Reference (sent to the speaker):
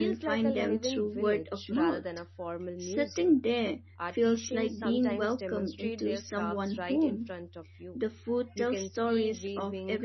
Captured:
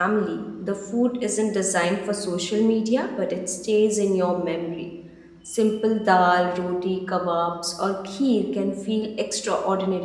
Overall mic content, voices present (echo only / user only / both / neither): user only